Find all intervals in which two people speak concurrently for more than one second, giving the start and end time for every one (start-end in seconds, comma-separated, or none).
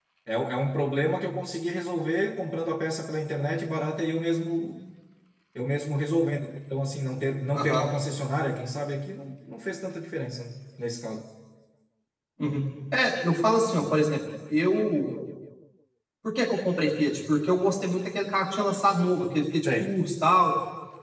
none